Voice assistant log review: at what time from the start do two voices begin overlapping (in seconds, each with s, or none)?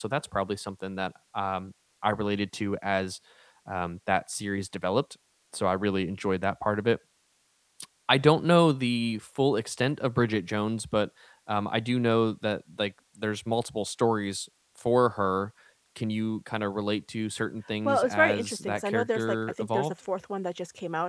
17.8 s